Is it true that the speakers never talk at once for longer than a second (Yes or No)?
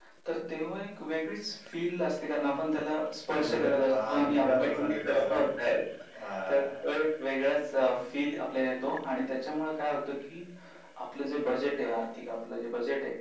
No